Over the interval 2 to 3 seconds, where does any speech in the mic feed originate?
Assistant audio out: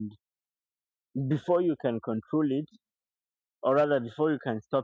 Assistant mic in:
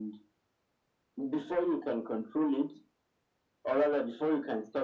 echo only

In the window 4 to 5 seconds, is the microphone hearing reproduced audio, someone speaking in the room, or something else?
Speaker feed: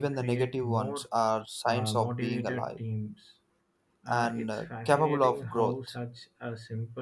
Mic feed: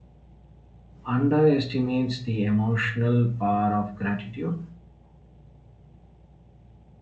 user only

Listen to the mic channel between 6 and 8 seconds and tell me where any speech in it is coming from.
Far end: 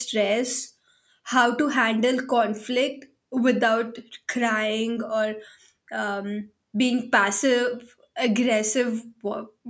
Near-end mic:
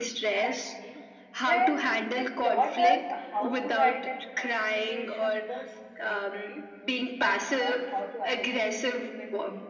both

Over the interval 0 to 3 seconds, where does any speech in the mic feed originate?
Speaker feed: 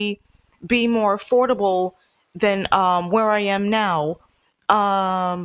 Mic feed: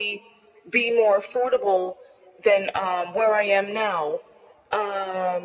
echo only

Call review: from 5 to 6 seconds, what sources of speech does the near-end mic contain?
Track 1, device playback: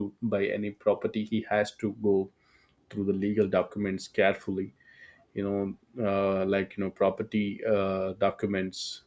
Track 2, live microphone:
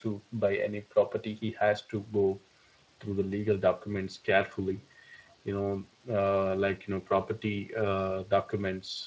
echo only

